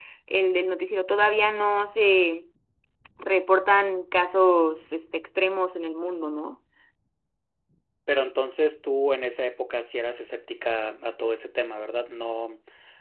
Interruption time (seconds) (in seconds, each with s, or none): none